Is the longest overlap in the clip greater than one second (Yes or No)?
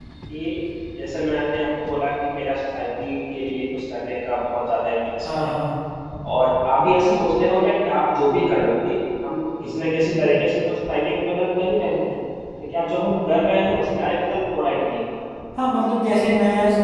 No